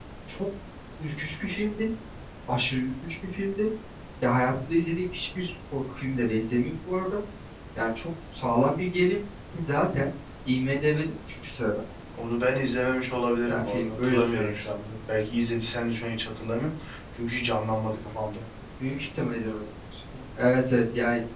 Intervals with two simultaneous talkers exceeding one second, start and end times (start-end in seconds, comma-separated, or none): 13.5-14.7